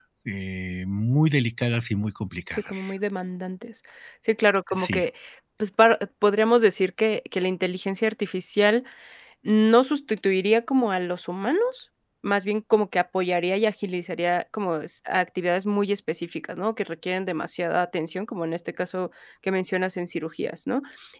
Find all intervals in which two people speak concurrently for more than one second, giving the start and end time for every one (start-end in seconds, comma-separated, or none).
none